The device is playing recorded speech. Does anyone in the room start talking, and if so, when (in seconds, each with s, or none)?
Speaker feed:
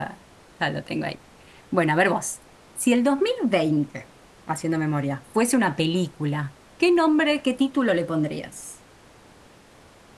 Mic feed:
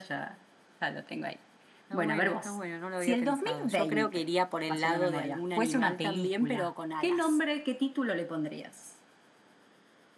1.8 s